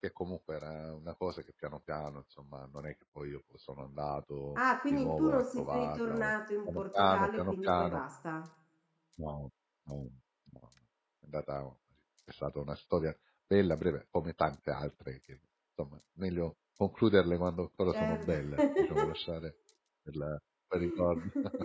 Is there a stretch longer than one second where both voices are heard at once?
Yes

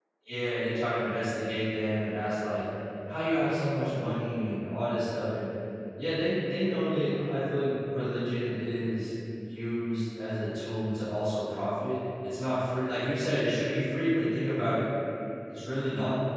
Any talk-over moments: No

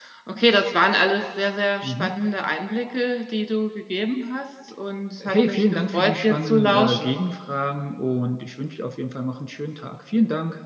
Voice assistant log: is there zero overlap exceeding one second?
No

